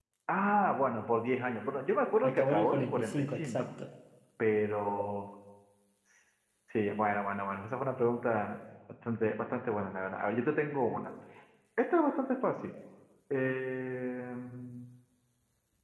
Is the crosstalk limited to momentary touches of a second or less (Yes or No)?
No